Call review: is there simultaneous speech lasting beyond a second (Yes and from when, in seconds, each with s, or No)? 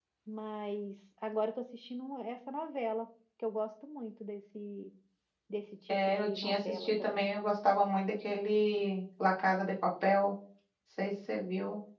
Yes, from 5.9 s